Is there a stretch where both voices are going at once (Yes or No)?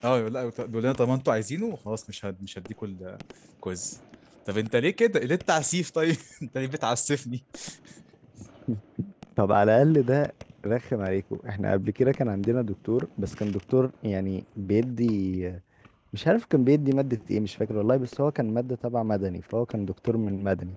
No